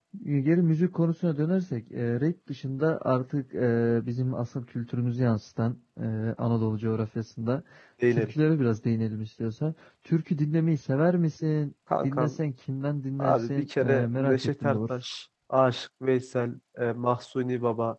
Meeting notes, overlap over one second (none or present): present